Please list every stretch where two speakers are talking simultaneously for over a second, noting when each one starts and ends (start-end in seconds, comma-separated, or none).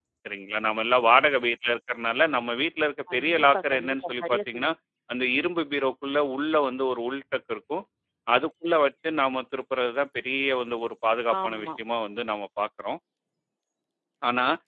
3.1-4.7